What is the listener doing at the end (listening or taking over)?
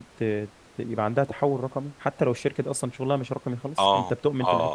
taking over